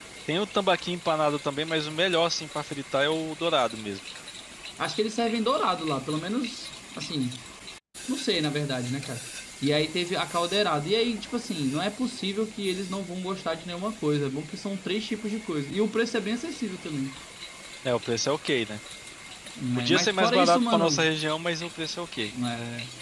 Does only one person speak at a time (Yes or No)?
No